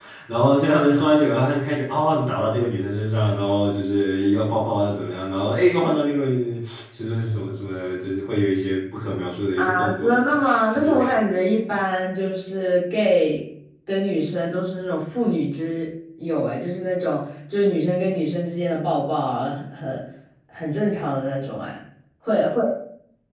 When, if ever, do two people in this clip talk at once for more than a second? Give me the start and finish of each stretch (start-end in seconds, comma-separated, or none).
9.6-10.9